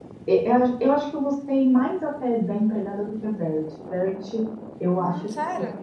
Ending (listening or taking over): listening